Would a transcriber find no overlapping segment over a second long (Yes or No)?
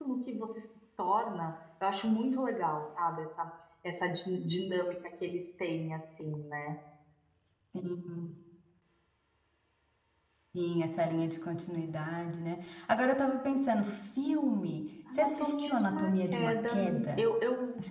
No